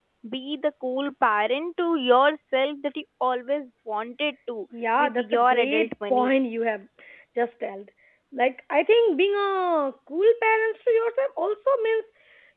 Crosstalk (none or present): present